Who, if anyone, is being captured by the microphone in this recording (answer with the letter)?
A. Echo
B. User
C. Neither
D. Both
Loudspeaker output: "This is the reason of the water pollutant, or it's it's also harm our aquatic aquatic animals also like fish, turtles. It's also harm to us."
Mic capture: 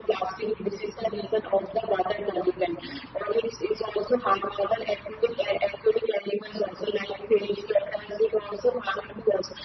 A